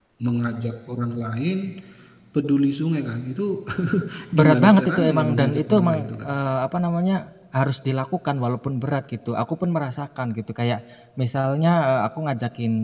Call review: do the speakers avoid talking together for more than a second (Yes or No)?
No